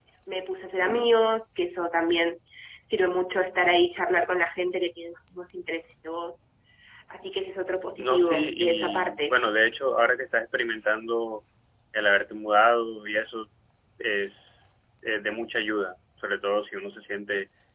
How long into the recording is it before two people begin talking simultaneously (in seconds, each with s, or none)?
7.9 s